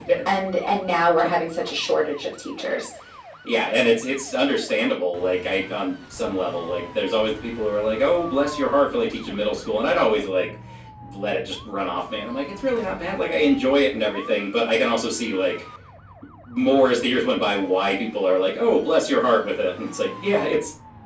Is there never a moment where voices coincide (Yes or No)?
Yes